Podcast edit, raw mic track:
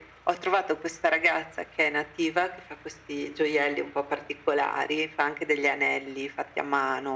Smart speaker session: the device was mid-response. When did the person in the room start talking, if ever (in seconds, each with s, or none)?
none